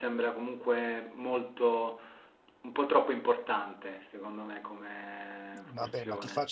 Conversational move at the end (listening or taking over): taking over